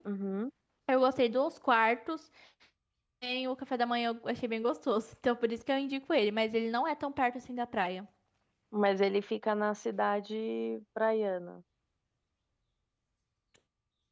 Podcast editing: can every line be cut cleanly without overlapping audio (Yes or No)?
Yes